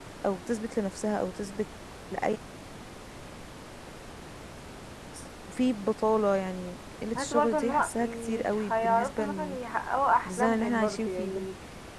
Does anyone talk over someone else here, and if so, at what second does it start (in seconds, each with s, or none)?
7.2 s